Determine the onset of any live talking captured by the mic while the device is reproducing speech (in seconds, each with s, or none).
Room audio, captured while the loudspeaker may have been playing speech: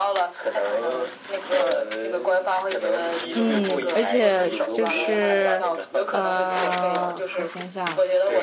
3.3 s